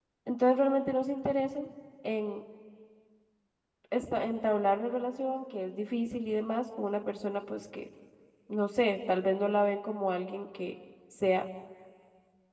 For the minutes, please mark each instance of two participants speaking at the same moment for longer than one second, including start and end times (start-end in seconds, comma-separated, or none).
none